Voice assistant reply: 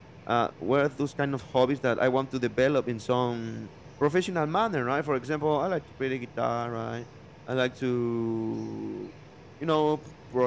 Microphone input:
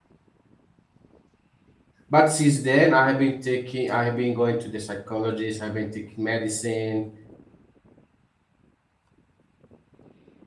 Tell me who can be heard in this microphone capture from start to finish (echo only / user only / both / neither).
user only